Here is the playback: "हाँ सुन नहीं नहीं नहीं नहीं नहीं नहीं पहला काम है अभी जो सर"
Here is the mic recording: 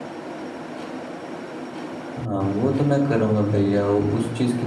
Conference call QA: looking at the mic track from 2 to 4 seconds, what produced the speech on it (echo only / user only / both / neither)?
user only